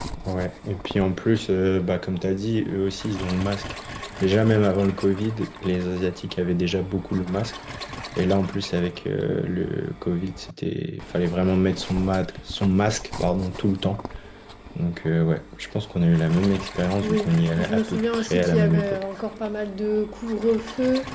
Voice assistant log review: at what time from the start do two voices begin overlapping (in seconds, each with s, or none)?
17.0 s